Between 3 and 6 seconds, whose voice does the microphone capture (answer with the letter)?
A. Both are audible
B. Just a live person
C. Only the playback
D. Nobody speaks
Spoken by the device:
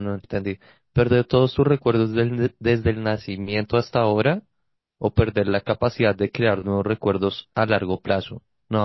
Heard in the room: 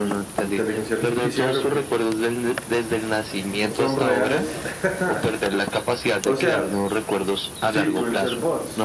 A